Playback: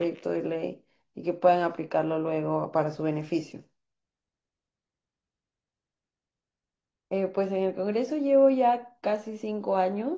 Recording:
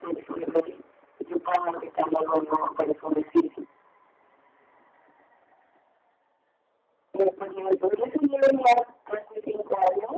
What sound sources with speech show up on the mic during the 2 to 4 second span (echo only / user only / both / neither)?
echo only